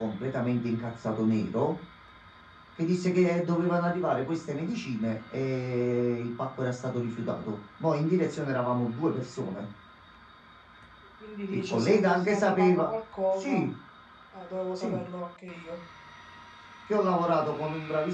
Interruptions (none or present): present